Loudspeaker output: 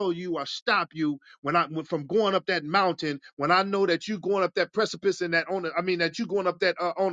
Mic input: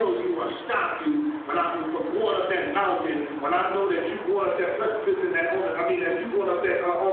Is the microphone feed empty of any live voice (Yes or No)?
Yes